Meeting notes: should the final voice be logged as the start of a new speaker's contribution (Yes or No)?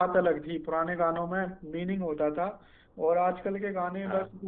No